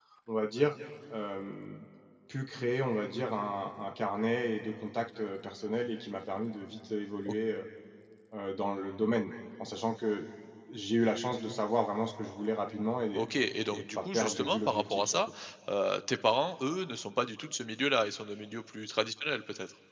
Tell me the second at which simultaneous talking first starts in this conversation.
14 s

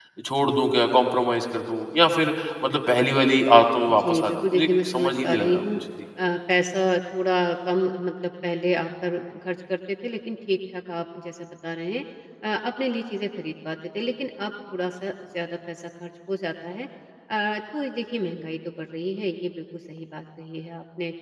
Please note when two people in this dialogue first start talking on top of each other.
4 s

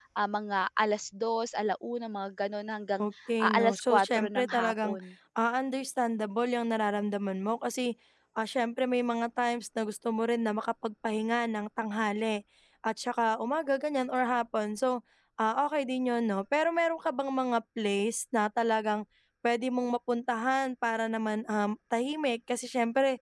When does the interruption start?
3 s

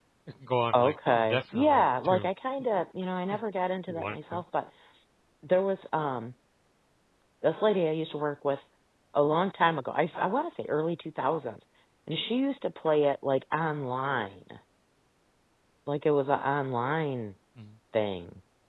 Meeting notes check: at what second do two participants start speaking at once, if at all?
1 s

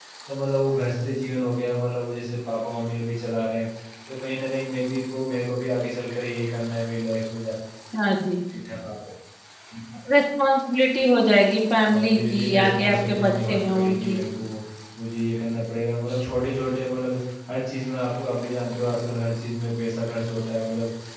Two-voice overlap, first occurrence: 12 s

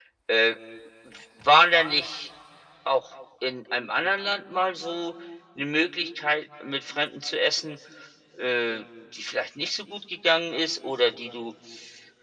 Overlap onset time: none

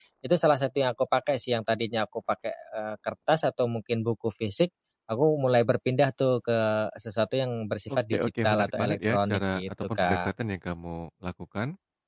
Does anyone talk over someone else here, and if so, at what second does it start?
8 s

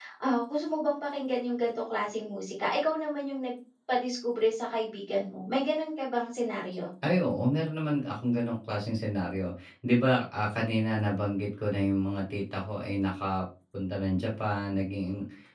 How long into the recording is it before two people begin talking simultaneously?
none

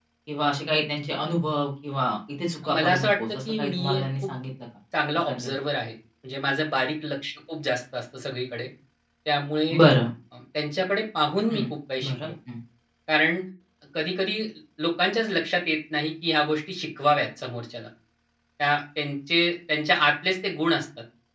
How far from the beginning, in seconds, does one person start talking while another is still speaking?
3 s

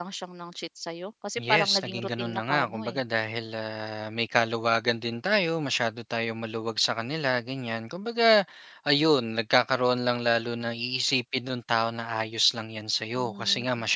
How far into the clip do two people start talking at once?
1 s

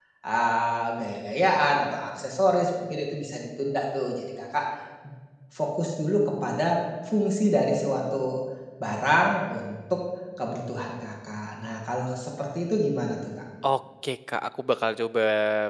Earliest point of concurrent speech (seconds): none

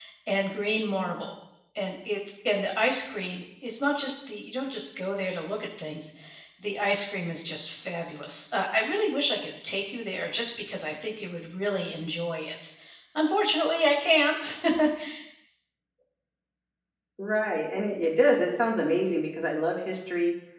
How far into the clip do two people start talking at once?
none

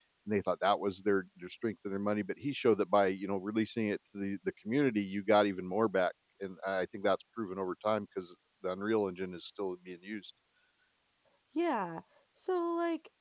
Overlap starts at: none

